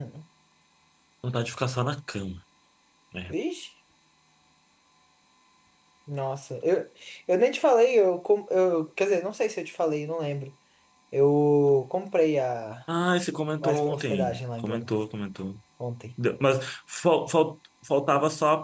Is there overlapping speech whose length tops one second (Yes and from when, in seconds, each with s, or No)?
Yes, from 13.6 s